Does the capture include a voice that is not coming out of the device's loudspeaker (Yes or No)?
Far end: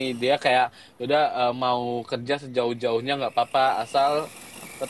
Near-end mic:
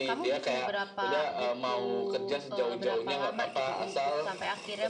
Yes